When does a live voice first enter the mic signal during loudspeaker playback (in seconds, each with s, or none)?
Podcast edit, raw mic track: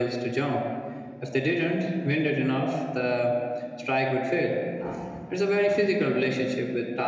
none